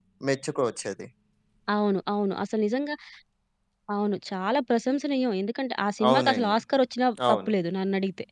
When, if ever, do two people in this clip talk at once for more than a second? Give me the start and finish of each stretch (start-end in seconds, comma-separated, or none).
none